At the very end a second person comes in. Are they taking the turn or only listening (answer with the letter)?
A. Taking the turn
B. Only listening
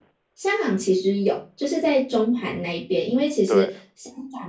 B